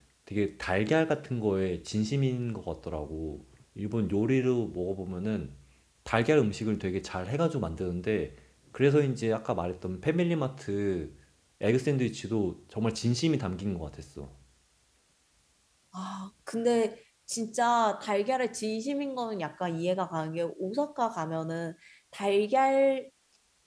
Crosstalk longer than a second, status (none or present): none